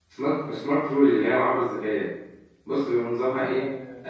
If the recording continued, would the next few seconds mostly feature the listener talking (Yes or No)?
Yes